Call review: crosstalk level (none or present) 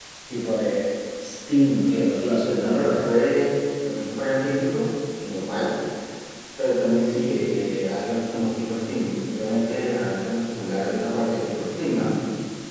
present